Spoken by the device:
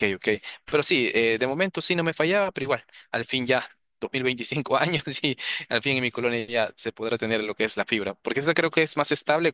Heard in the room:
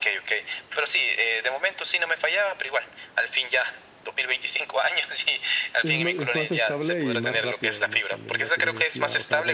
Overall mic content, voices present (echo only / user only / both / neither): both